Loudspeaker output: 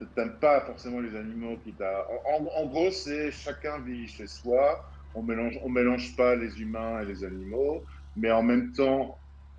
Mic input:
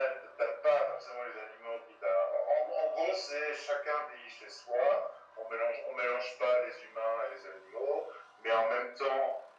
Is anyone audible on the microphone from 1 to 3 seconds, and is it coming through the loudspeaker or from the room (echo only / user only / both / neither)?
echo only